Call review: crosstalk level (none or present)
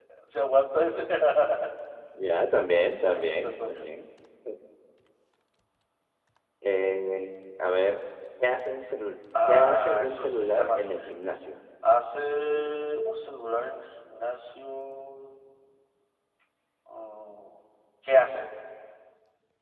present